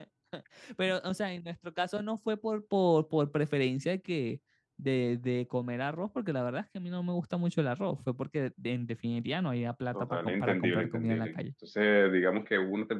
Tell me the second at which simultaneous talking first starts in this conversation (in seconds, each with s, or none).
9.9 s